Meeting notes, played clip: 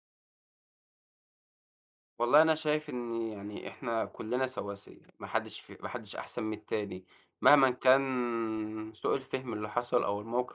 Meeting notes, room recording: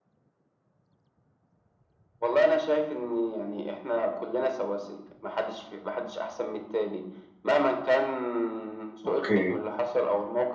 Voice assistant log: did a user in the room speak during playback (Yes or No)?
Yes